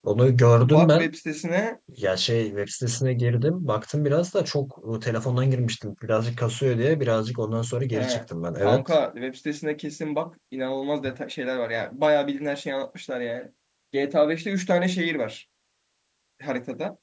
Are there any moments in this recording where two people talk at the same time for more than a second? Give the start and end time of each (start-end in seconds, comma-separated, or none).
none